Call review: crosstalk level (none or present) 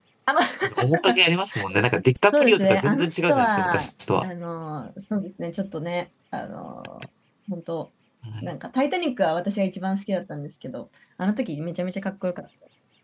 present